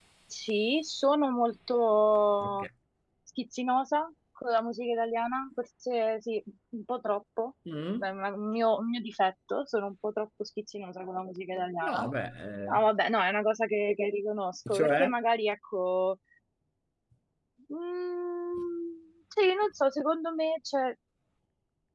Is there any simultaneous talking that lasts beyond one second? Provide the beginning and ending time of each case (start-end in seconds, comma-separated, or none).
none